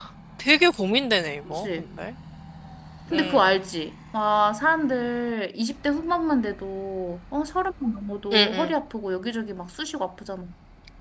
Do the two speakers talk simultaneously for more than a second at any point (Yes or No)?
No